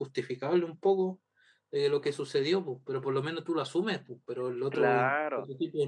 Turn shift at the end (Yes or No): Yes